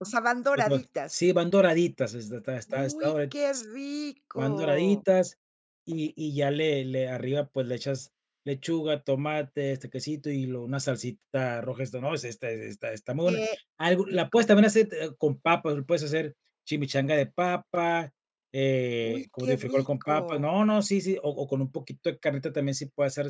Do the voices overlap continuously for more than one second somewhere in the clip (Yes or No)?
Yes